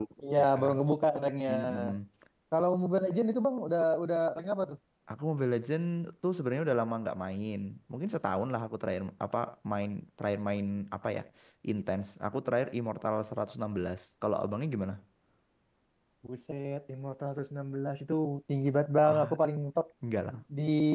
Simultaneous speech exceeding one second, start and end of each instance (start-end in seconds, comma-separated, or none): none